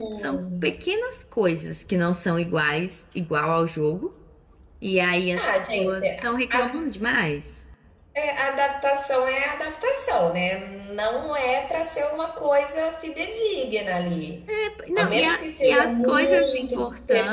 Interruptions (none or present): present